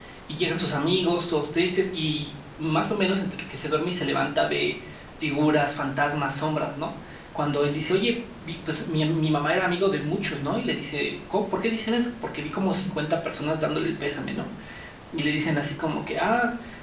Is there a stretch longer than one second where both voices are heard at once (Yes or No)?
No